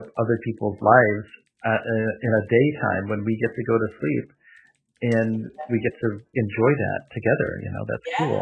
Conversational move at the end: taking over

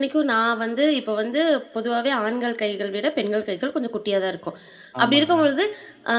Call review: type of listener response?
listening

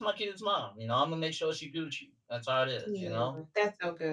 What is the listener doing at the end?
taking over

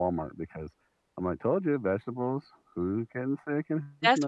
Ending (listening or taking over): taking over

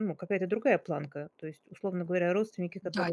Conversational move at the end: listening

